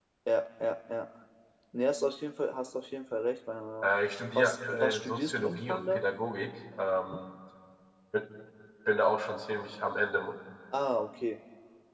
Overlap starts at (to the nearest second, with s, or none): 4 s